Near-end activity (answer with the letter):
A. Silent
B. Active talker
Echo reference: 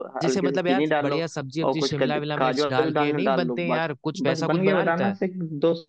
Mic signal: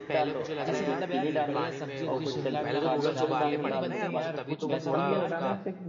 B